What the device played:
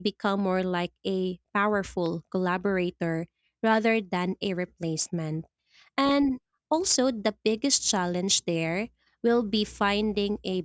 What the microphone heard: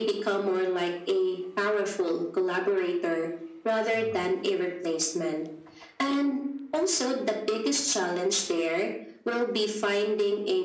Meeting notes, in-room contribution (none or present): present